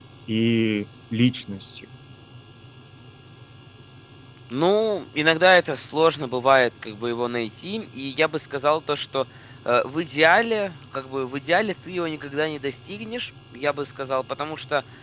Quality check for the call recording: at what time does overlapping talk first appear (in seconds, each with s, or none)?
none